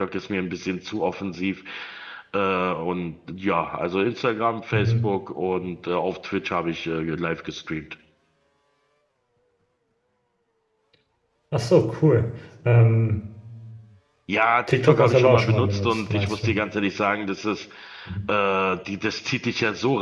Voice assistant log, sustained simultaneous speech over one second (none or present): present